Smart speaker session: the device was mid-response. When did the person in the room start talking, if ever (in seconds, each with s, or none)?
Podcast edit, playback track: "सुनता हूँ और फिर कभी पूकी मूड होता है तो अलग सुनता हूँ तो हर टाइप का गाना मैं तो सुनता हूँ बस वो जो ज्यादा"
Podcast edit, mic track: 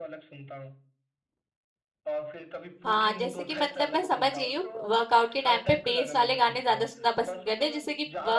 2.8 s